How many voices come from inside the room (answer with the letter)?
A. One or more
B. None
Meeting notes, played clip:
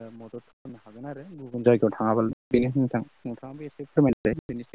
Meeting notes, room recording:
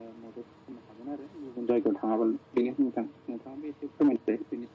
B